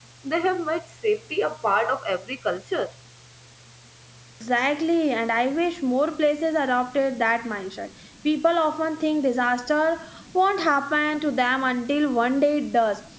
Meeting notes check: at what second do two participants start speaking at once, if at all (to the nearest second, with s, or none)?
none